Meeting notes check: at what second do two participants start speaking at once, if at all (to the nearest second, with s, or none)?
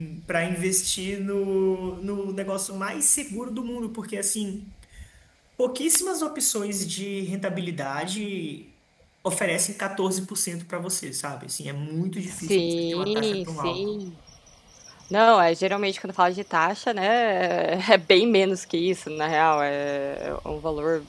12 s